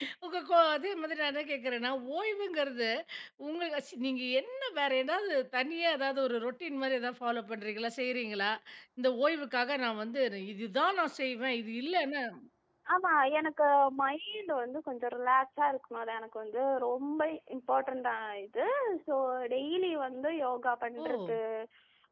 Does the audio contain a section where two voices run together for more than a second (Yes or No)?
No